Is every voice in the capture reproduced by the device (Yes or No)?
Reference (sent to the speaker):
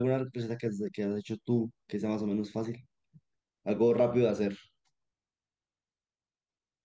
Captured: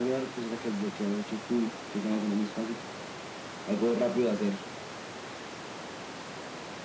Yes